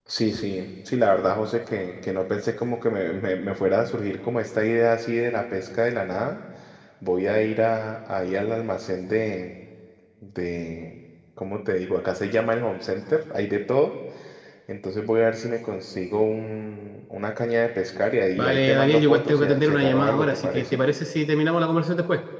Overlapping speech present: Yes, from 18.4 s

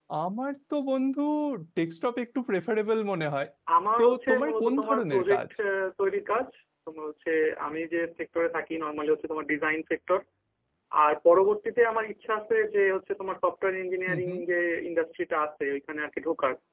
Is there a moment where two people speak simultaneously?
Yes, from 4.0 s

